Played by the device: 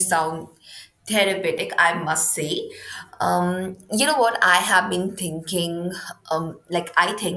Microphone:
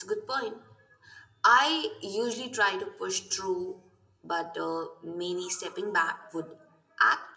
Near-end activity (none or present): present